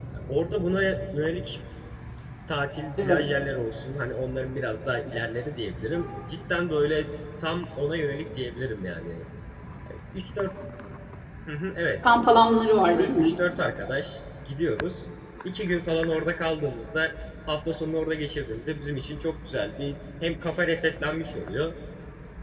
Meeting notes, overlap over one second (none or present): none